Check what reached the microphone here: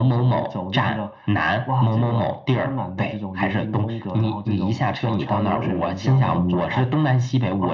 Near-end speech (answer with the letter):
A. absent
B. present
A